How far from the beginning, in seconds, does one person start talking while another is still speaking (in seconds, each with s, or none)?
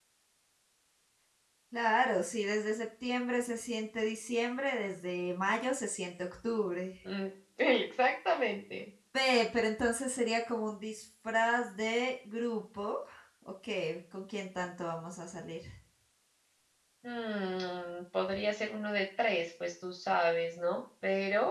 none